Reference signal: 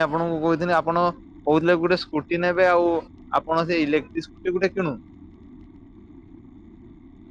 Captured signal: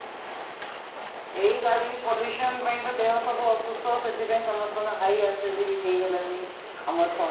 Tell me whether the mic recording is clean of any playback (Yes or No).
Yes